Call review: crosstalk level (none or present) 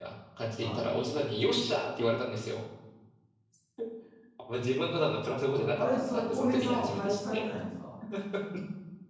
present